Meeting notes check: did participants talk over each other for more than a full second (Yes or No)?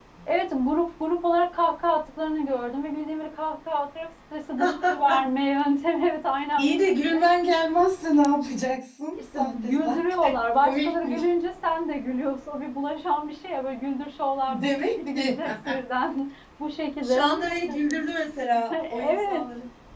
Yes